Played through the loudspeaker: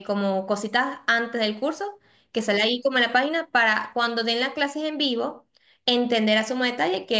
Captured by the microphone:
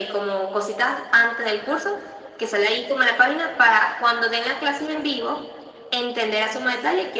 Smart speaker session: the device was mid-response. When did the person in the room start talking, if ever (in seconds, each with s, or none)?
none